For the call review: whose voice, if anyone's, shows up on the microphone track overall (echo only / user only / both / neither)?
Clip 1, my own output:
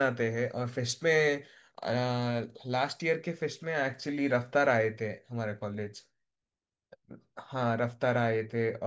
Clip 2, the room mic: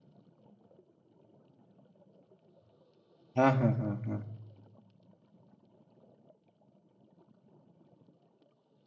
user only